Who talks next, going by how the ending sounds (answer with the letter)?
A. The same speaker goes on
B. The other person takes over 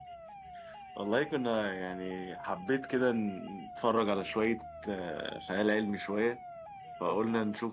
A